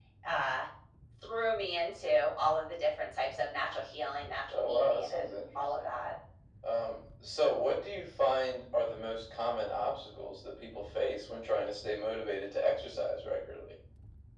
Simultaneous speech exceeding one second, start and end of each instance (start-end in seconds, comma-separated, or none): 4.5-5.9